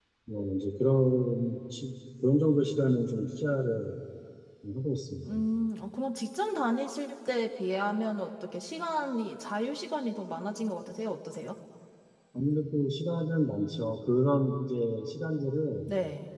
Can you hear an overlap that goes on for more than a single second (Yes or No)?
No